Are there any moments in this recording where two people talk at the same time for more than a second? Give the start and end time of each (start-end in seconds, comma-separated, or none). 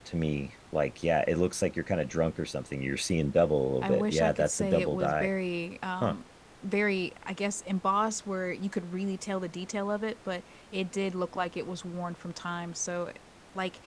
3.8-5.3